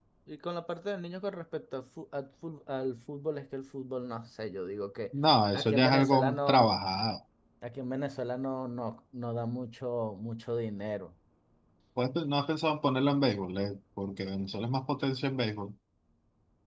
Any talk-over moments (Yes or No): Yes